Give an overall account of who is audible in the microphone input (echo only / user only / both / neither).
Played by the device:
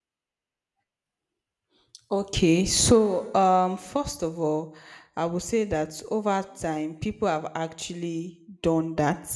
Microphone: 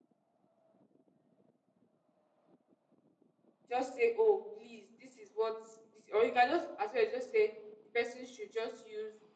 user only